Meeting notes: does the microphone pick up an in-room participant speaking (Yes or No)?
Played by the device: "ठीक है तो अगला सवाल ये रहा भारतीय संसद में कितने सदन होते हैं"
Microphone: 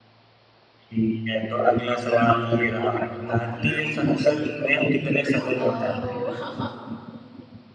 Yes